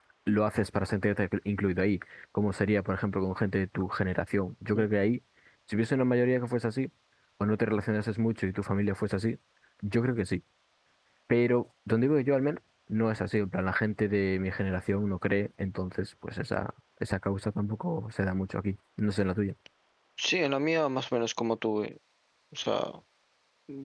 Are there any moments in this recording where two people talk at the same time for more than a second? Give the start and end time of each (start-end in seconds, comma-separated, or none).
none